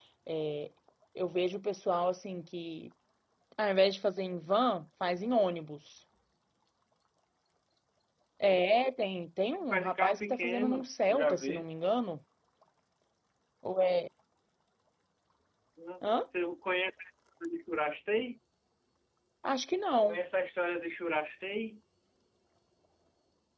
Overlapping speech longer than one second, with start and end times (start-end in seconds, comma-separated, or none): 9.5-11.6